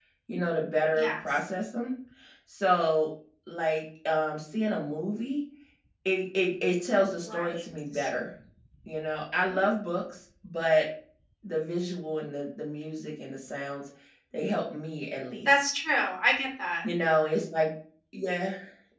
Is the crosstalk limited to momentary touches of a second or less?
Yes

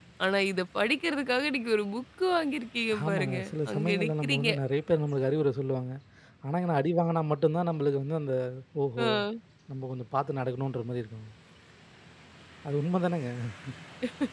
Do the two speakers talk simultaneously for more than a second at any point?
Yes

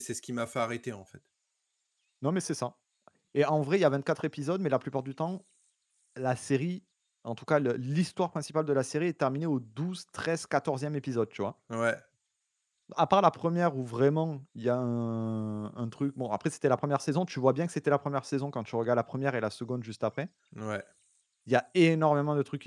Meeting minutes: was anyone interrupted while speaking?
No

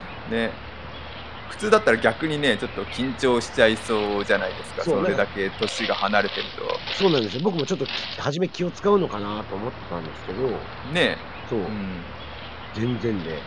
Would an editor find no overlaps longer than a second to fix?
Yes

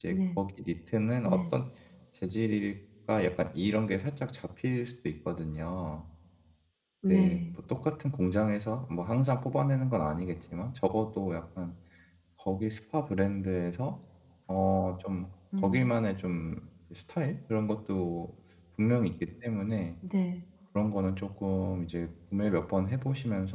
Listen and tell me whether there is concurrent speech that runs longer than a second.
No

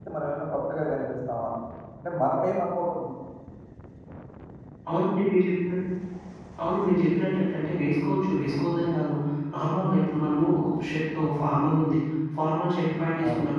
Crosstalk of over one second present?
No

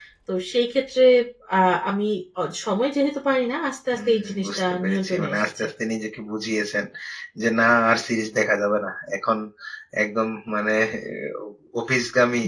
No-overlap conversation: No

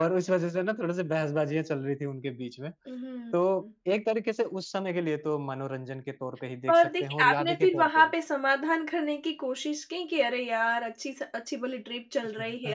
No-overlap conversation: No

